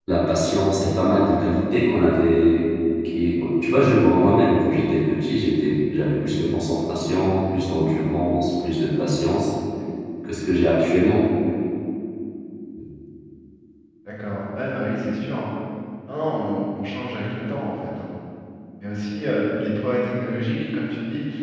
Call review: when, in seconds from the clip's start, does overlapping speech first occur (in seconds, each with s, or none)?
none